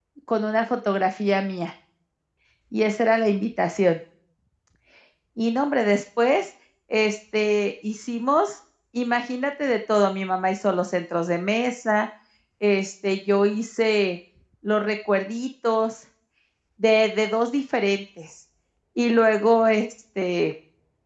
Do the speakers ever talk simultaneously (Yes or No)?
No